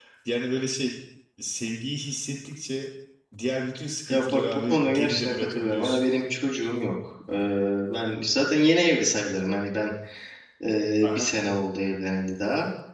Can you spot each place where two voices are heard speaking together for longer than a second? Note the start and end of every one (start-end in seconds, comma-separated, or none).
4.1-6.0